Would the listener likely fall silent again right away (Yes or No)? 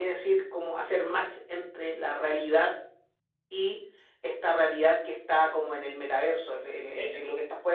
Yes